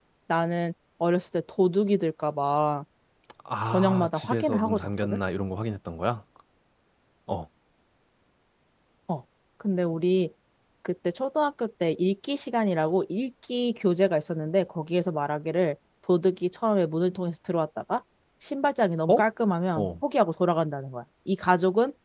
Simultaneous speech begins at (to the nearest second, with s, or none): 4 s